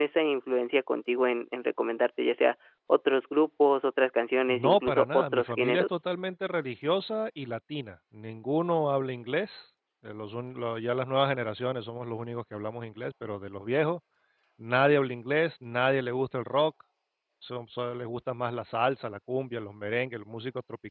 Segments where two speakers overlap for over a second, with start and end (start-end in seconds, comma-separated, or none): 4.5-5.9